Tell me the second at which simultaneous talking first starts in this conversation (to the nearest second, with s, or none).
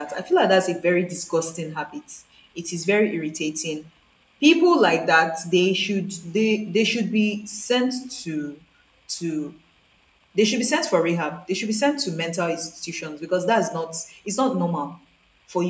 none